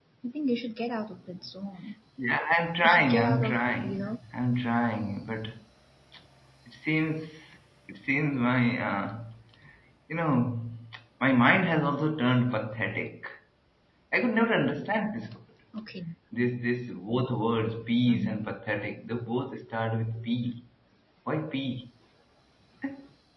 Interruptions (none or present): present